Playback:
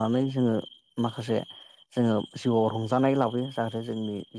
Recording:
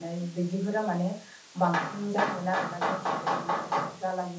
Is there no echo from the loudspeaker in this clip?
Yes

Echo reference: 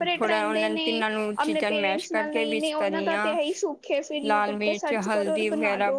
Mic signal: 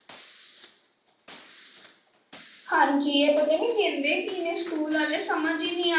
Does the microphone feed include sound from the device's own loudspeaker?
No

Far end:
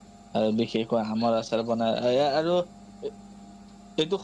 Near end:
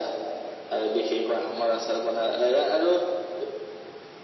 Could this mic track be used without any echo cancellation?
No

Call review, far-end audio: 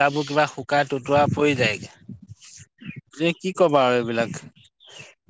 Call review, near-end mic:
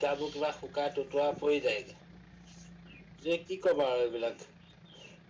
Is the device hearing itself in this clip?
Yes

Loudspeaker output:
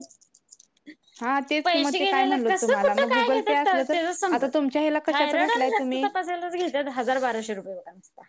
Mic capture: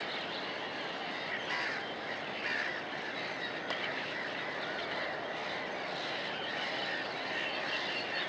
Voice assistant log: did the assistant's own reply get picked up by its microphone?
No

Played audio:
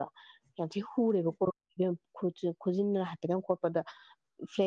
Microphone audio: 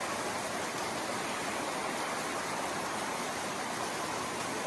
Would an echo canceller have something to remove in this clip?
No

